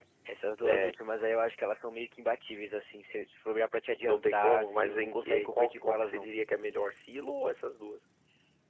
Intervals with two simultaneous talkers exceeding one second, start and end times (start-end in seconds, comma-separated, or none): 4.0-6.3